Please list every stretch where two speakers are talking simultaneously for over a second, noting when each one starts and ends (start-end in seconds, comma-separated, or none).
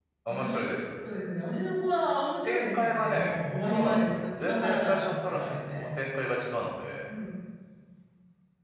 2.4-5.9